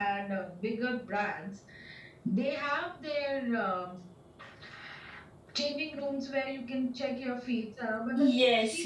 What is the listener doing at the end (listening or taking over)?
taking over